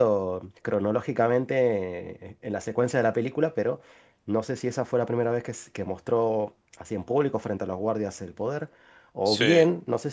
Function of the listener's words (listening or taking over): listening